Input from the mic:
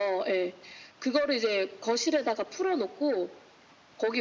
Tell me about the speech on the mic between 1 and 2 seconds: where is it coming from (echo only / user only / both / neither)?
echo only